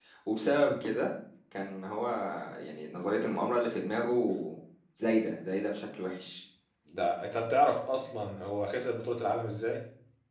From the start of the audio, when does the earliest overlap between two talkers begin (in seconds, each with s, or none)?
none